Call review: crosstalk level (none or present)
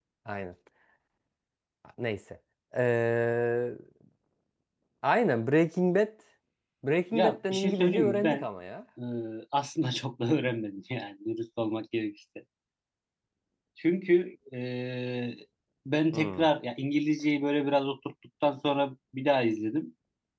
present